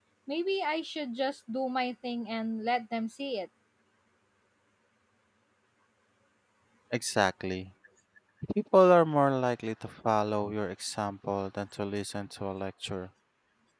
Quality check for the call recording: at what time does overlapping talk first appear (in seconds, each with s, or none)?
none